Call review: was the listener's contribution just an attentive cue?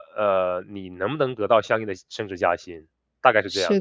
No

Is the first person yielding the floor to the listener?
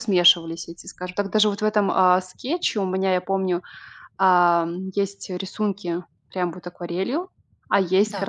No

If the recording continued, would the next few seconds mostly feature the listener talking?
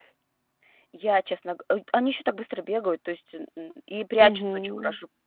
No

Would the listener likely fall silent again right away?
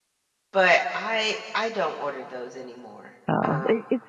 No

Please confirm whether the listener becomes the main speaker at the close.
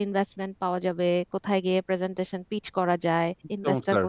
No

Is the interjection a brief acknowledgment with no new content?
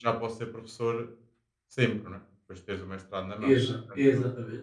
No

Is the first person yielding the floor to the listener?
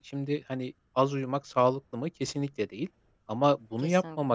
No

